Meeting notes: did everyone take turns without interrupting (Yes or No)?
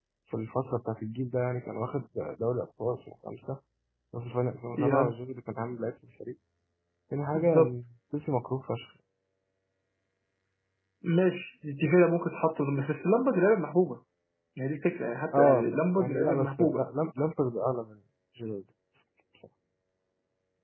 No